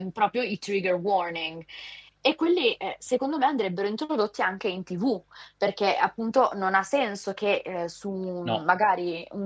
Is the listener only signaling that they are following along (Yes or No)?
Yes